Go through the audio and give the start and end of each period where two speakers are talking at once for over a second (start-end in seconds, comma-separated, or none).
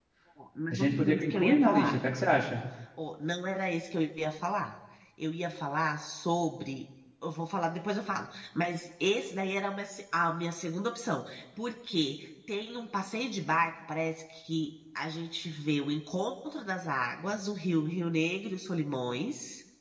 0.7-2.0